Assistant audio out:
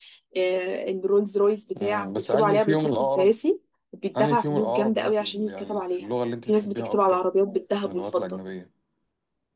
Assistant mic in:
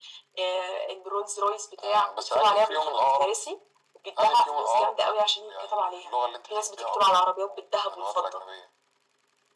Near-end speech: none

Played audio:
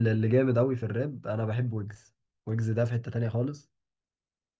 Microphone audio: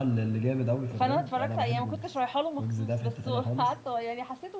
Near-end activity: present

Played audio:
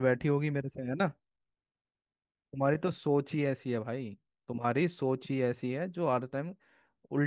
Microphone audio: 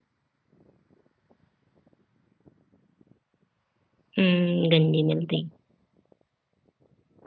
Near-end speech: present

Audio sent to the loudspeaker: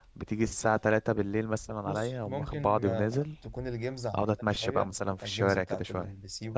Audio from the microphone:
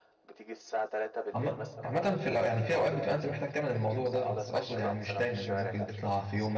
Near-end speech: present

